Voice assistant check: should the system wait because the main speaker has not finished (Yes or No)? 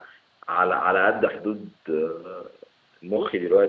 Yes